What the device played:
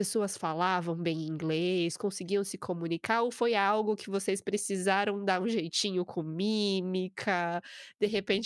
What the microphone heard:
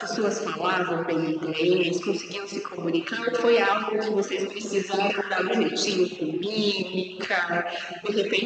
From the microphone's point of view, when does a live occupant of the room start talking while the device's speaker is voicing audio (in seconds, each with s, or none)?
none